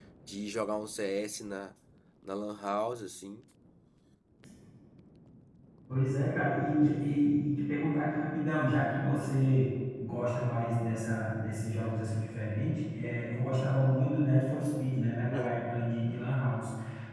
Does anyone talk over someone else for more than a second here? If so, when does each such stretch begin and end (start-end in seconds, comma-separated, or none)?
none